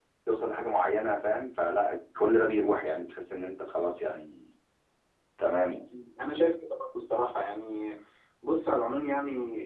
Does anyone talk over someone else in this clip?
No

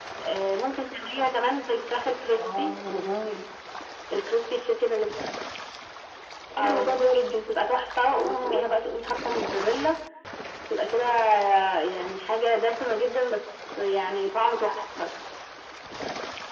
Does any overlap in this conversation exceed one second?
No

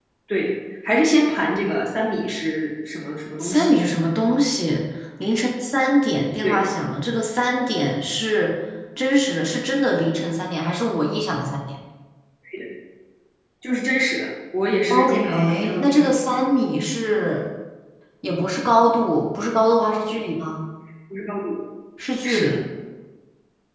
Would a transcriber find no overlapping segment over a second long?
No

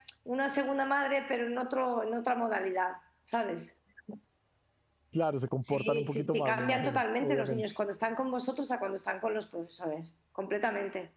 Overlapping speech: Yes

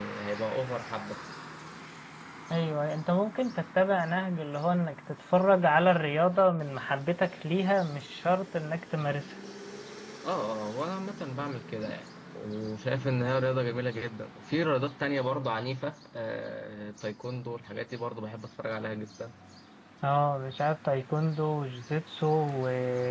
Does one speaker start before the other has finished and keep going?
No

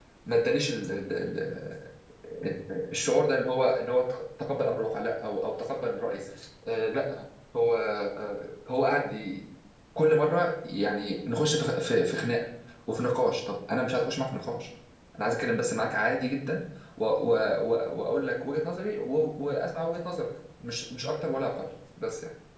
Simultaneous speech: No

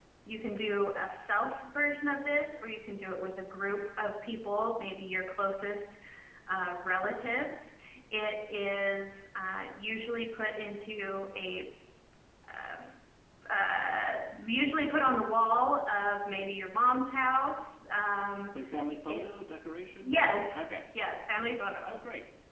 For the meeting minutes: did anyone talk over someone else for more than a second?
No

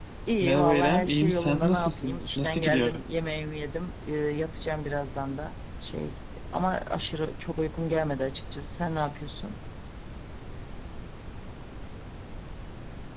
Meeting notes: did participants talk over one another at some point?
Yes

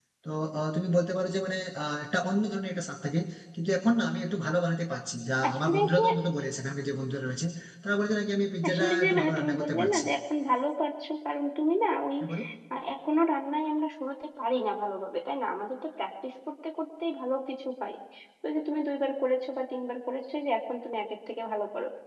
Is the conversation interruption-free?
No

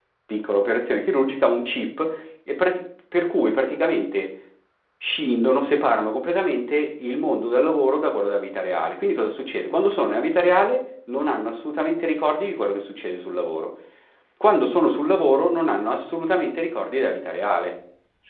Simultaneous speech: No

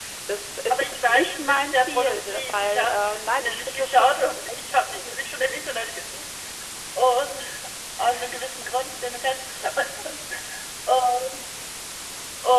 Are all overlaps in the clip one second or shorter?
No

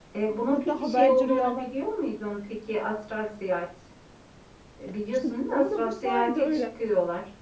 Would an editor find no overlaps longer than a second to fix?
No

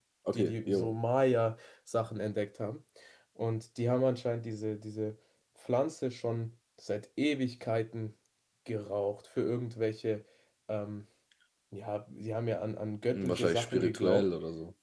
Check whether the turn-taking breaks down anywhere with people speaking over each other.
Yes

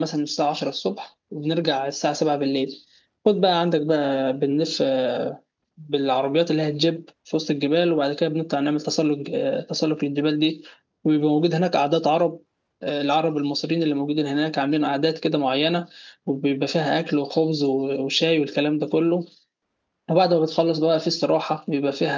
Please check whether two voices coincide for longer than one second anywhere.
No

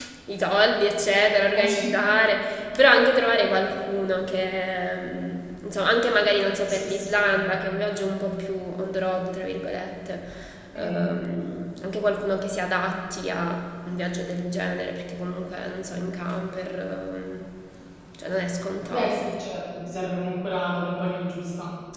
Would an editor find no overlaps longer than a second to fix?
Yes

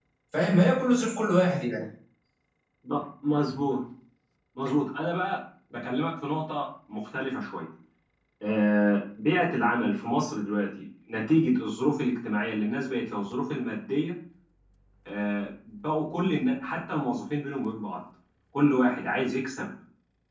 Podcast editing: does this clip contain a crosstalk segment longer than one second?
No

